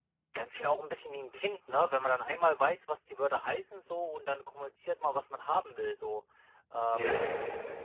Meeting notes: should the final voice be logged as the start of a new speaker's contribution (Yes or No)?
No